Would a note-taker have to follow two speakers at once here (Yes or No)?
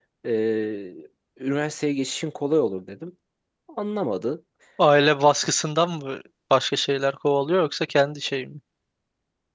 No